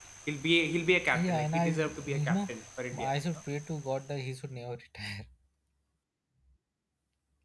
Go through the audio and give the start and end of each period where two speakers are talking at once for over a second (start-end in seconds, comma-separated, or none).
1.1-2.4